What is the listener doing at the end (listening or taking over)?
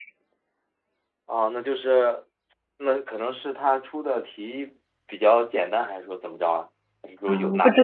taking over